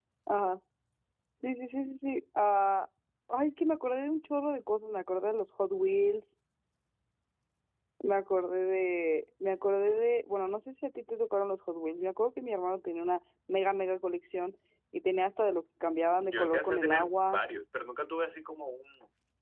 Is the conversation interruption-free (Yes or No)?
No